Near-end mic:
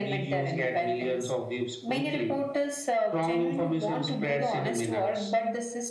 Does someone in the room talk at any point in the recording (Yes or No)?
No